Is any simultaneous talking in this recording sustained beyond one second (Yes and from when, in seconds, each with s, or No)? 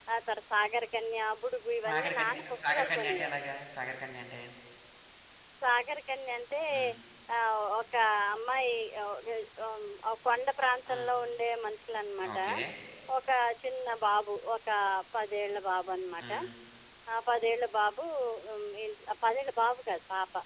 Yes, from 1.8 s